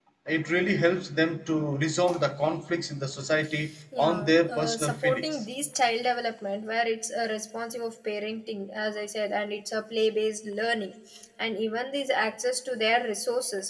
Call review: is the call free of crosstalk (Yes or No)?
No